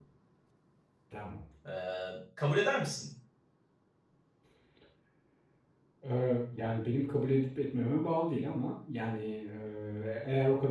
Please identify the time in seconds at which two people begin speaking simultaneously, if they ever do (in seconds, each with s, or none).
none